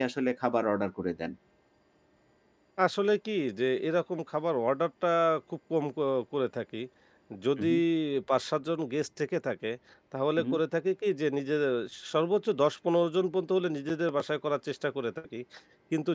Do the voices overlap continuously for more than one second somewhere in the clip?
No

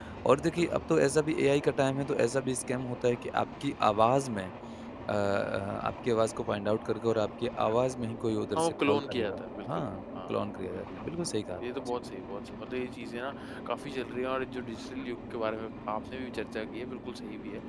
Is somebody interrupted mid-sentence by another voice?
Yes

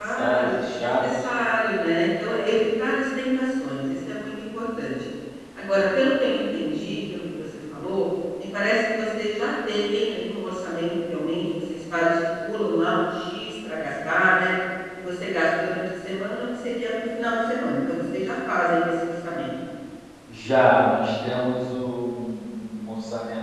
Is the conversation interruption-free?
No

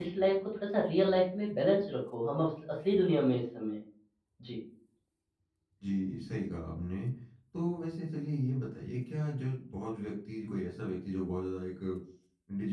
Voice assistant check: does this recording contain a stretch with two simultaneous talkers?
No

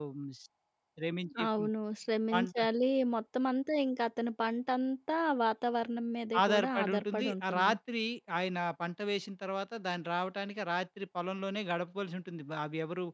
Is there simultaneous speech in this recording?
Yes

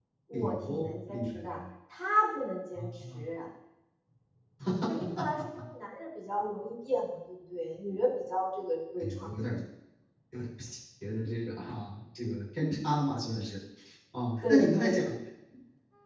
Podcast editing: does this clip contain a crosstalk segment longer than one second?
Yes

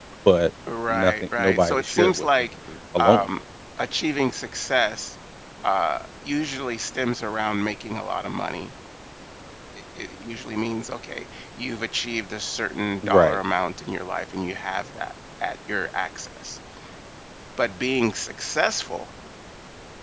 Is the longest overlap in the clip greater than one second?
Yes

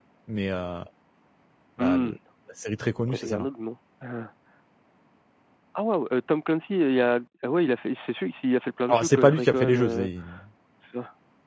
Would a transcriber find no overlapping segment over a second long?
No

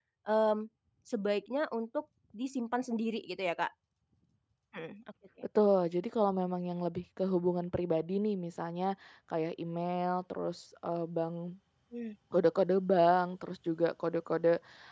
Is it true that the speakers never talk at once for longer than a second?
Yes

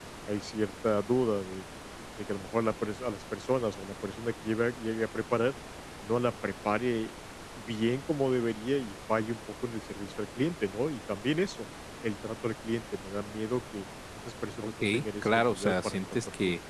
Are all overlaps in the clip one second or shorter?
No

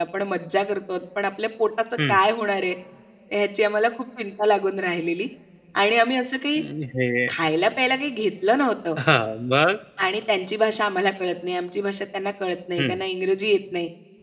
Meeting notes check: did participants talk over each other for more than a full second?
No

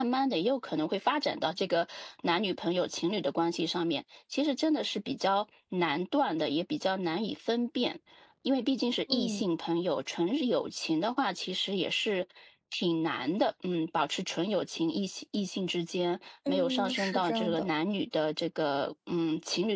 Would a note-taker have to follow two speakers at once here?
Yes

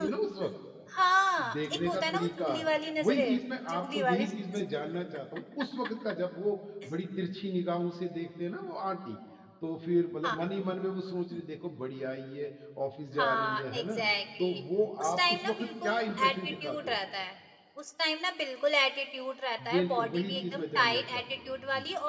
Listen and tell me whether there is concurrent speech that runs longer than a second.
Yes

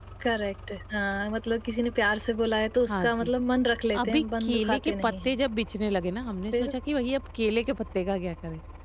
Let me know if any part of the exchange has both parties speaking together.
Yes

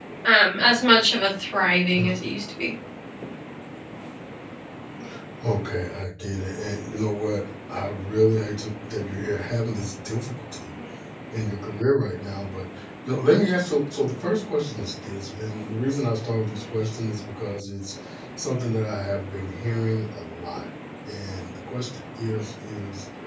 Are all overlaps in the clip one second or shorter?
Yes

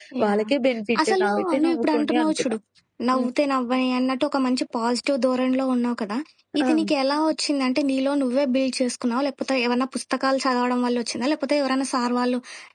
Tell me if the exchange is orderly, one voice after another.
No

